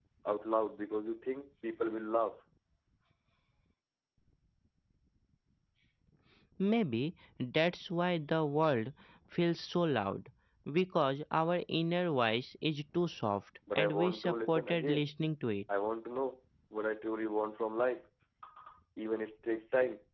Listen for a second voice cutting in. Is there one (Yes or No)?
Yes